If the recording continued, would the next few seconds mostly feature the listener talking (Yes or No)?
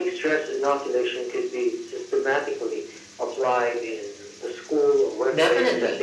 Yes